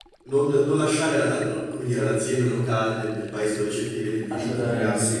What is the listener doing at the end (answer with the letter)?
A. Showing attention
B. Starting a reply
A